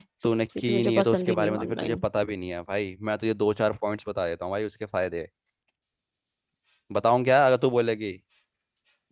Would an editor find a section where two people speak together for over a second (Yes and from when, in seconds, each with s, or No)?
Yes, from 0.6 s